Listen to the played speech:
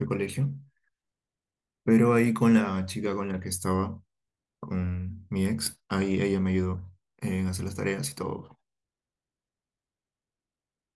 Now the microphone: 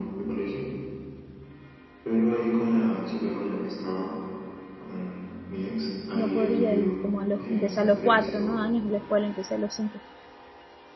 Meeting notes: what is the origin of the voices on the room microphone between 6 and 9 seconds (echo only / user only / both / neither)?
both